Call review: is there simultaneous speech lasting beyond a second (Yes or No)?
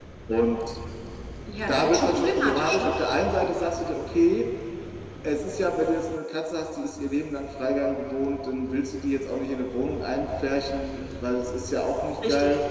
Yes